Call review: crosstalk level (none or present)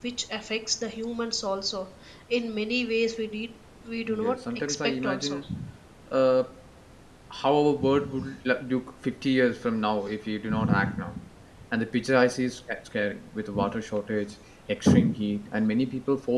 present